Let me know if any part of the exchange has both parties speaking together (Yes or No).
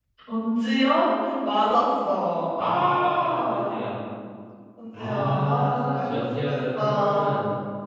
Yes